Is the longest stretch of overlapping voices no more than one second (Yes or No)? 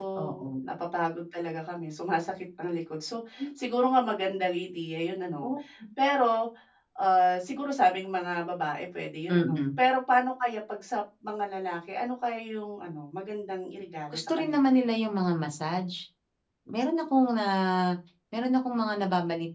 Yes